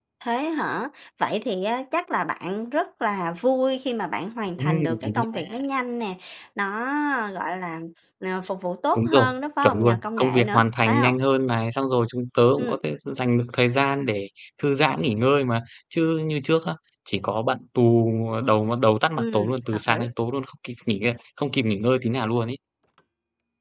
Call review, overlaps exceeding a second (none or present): present